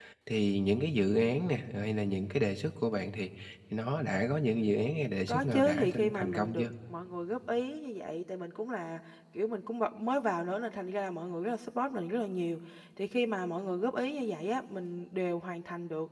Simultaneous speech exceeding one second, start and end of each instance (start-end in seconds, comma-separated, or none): 5.3-6.7